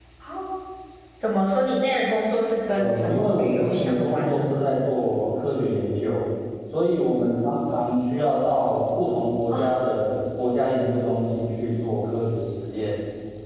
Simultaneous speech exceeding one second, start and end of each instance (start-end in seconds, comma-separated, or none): 2.7-4.7